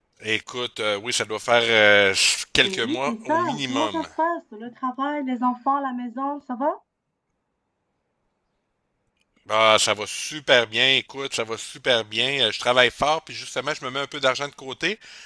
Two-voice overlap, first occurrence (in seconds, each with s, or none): 2.6 s